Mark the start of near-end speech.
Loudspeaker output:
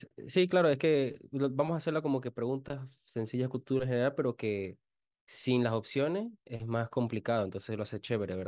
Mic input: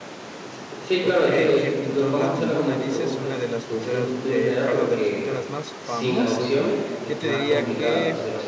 1.0 s

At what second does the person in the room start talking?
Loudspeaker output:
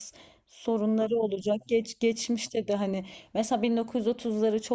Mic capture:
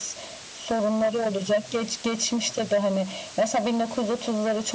none

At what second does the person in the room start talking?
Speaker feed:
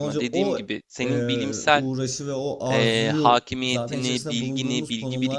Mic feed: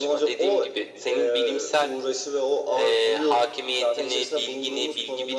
none

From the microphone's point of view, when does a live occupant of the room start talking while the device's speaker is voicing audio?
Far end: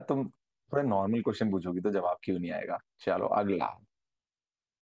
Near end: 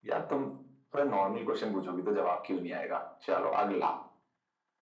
none

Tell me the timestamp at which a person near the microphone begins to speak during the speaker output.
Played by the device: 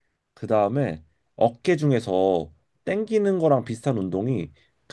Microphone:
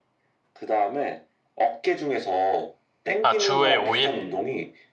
3.2 s

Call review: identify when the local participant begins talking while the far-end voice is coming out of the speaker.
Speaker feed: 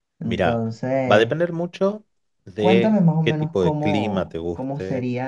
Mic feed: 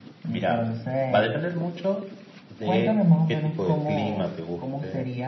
none

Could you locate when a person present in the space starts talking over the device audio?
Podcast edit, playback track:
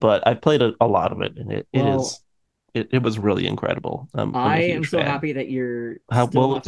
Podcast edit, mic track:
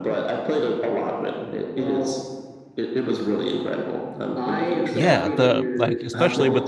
4.9 s

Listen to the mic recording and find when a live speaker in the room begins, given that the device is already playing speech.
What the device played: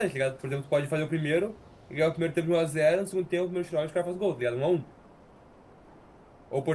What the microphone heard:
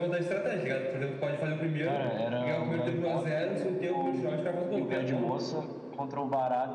1.8 s

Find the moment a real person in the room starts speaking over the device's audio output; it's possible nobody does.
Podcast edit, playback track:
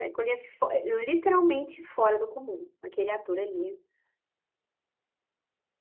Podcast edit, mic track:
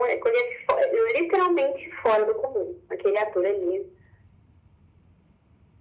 none

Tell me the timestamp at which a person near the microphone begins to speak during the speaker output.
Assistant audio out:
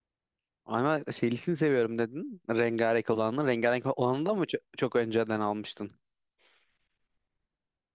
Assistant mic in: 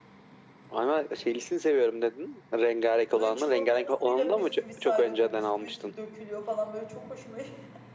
3.1 s

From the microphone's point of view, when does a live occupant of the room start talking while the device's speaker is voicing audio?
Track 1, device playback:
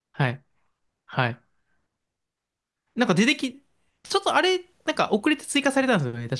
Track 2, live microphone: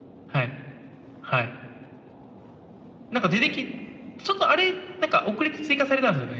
none

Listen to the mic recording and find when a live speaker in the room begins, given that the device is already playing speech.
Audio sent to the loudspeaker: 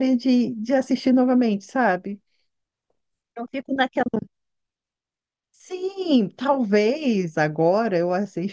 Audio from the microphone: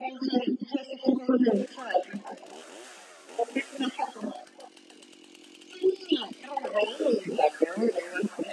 none

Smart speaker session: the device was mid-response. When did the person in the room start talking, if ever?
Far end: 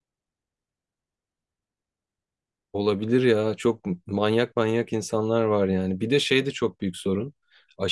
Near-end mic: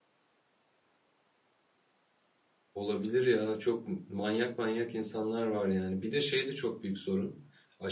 none

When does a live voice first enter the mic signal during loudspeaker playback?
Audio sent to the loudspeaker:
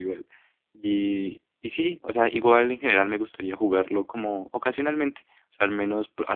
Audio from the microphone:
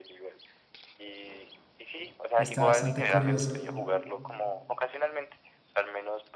2.4 s

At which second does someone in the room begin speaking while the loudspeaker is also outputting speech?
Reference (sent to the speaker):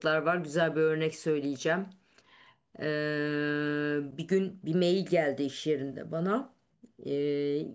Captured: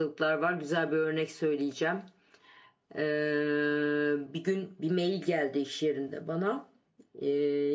none

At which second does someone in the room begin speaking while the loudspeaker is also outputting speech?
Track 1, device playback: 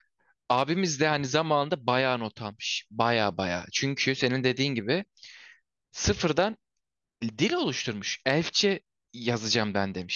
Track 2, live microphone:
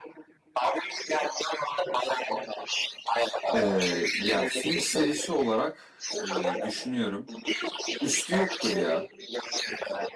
3.5 s

